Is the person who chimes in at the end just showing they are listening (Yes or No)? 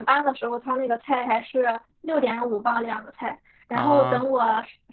Yes